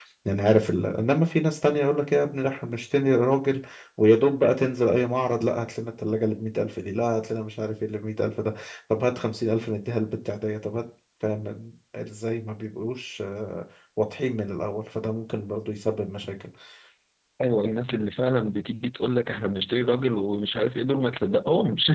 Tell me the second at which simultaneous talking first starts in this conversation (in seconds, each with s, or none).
none